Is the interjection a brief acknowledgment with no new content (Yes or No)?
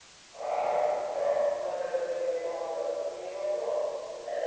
No